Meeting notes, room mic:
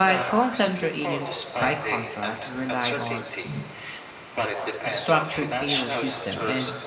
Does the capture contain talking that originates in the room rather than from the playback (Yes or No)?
Yes